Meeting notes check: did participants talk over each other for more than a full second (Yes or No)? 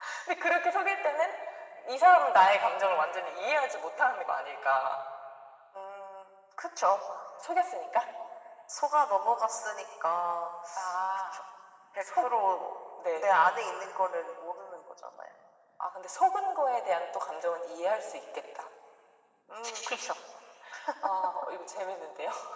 No